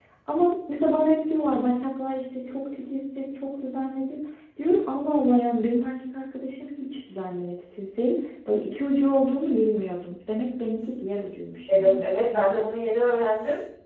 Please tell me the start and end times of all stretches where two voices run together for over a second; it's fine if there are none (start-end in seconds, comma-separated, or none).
none